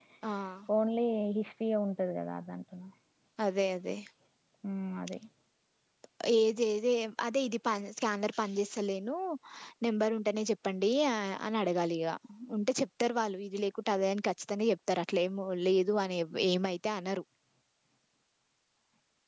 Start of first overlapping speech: none

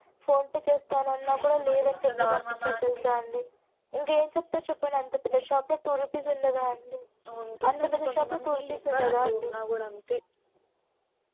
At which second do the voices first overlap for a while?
1.3 s

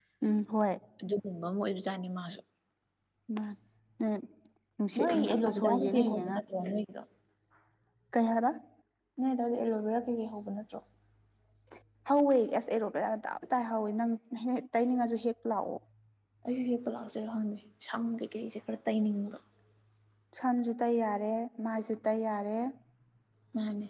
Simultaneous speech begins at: 5.0 s

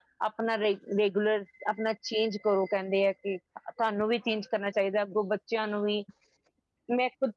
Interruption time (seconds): none

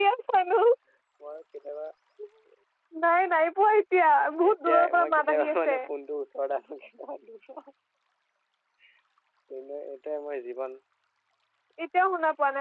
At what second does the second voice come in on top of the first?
4.4 s

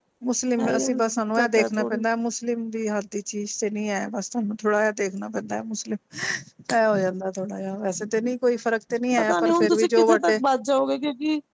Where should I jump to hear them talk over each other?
0.7 s

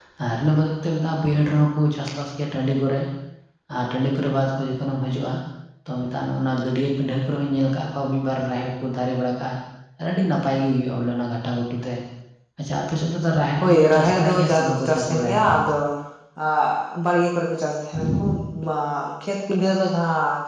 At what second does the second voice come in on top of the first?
13.6 s

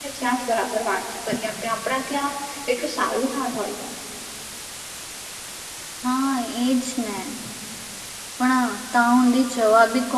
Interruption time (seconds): none

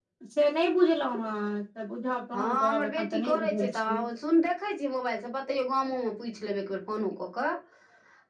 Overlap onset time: 2.3 s

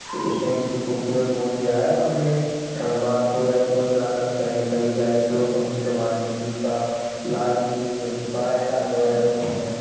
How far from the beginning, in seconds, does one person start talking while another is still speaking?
none

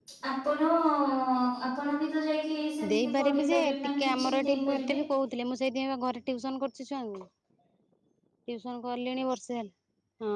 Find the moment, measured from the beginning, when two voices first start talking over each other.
2.8 s

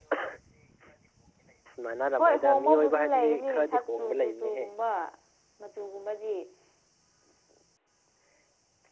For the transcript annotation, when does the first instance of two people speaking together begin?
2.2 s

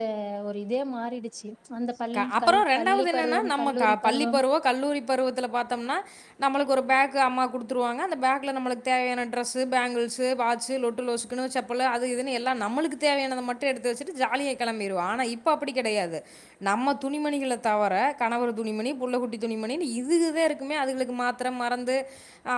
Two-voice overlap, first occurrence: 2.1 s

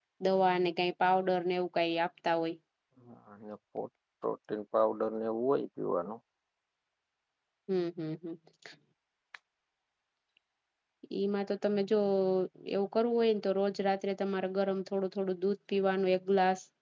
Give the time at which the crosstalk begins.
none

